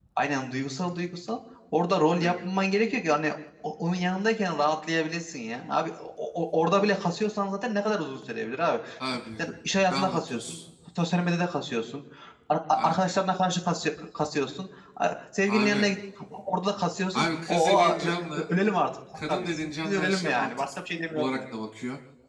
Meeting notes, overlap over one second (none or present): present